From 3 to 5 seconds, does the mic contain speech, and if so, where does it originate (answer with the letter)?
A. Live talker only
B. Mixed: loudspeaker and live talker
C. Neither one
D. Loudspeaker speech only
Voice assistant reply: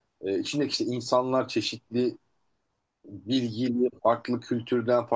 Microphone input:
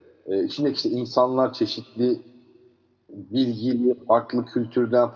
D